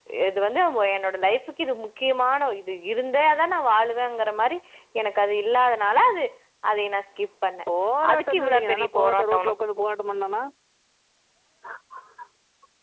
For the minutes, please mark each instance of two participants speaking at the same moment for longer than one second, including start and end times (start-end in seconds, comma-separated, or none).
8.1-9.5